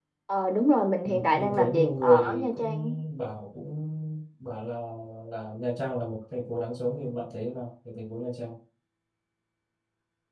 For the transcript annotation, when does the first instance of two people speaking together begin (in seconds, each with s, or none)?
1.0 s